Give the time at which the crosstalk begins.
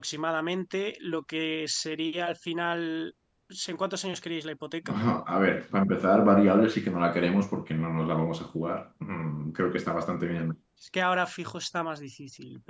none

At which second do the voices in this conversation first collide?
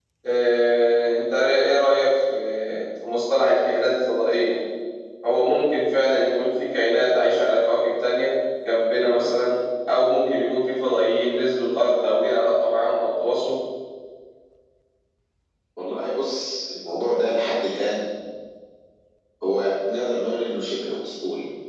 none

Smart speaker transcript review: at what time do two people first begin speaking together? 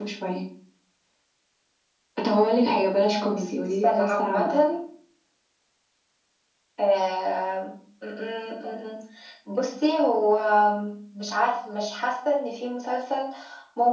3.0 s

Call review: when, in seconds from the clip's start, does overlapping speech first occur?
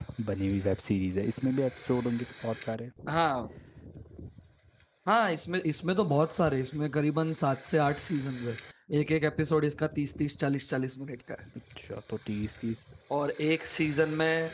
none

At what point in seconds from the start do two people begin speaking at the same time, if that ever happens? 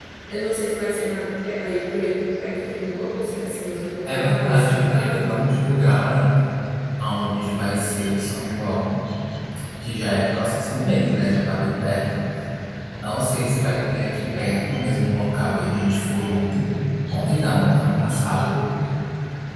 4.0 s

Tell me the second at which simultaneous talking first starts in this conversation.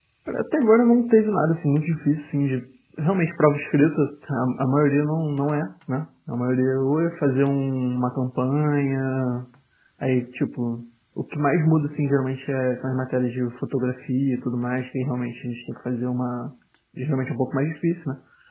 none

